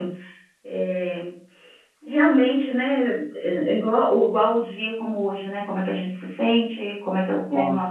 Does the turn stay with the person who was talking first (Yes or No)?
Yes